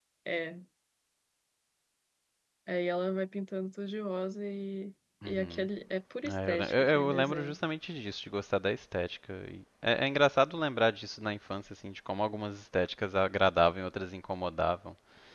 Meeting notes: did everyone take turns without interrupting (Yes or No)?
No